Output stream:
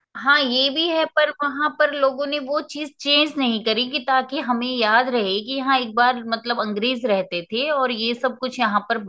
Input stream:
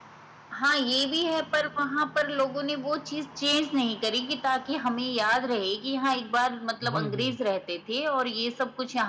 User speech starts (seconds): 7 s

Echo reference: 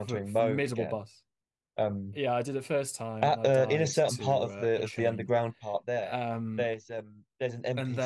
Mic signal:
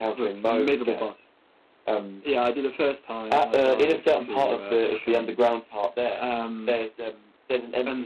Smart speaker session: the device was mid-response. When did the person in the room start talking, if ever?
none

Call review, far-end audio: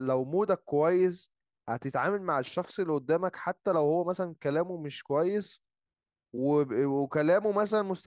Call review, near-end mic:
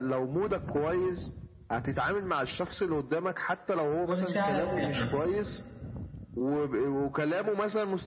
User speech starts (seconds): 4 s

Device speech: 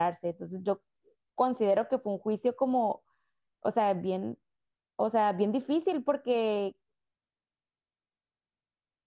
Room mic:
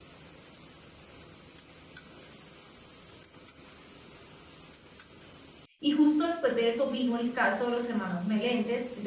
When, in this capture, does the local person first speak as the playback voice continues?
6 s

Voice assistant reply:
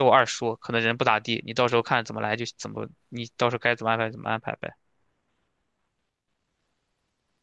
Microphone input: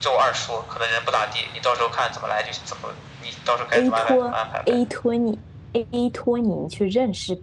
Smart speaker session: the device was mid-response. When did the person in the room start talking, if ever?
4 s

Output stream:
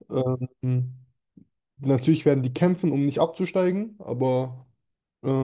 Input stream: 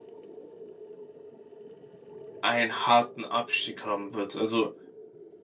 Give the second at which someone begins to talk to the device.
2 s

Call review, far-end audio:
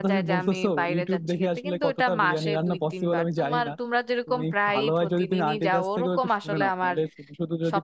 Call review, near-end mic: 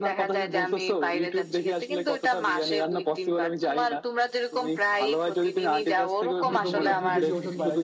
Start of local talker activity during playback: 6 s

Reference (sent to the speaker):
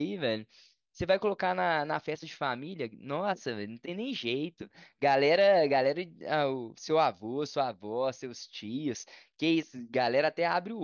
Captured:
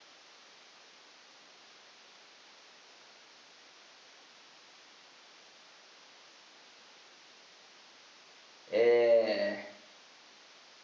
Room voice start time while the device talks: 9 s

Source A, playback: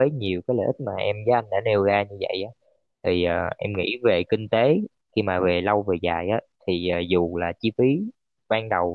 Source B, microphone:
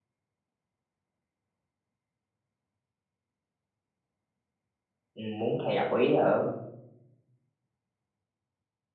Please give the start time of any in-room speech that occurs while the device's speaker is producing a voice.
5 s

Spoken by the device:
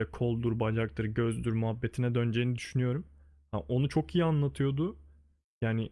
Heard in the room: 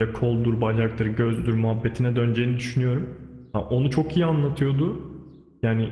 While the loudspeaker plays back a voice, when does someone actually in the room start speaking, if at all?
none

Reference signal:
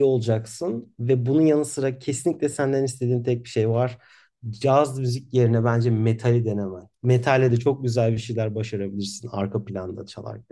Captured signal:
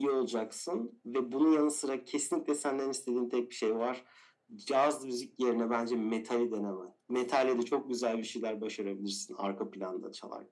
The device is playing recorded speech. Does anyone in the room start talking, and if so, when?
none

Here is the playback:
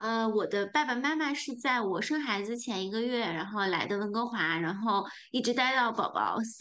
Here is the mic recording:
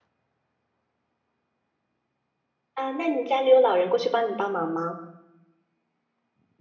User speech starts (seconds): 3 s

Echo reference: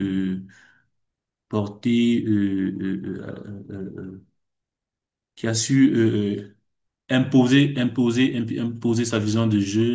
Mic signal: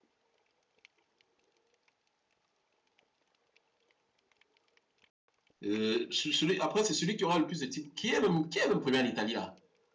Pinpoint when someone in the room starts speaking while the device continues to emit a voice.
6 s

